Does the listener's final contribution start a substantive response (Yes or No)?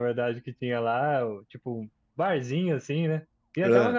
No